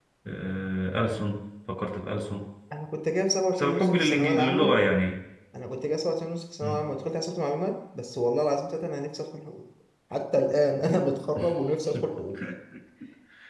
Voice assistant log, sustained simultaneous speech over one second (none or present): present